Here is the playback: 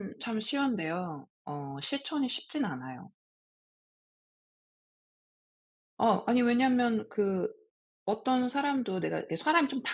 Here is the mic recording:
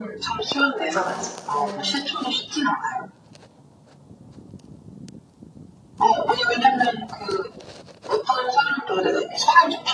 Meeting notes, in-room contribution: present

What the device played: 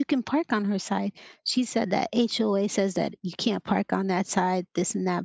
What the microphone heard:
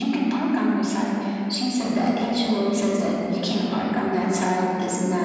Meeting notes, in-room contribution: none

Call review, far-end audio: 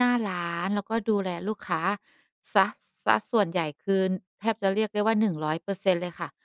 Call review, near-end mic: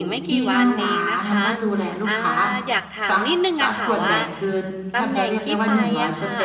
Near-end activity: present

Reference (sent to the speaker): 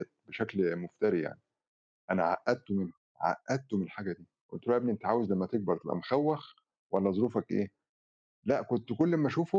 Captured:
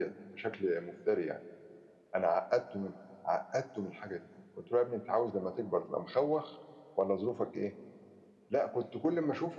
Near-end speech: none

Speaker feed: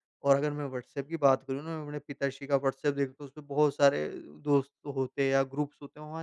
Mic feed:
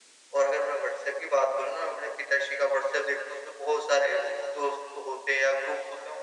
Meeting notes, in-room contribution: none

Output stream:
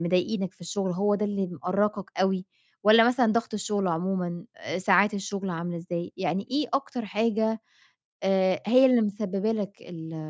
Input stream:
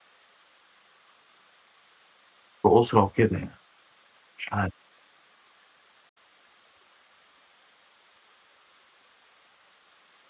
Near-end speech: present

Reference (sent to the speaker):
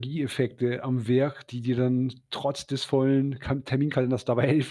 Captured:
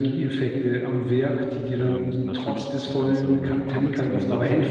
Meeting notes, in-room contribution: present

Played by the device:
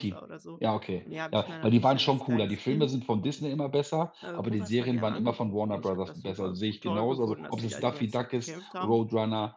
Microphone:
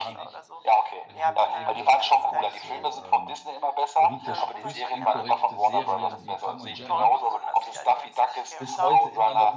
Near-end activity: present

